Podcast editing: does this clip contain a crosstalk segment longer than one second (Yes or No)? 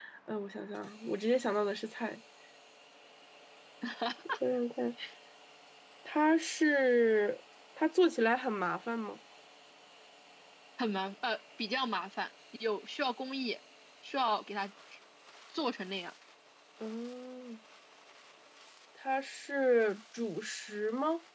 No